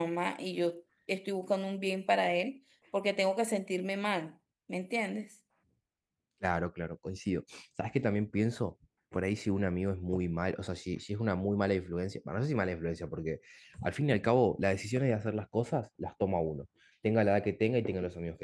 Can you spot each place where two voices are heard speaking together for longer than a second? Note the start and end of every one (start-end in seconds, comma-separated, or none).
none